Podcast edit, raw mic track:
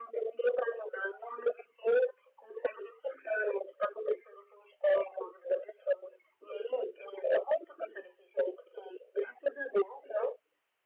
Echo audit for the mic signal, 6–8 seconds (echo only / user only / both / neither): echo only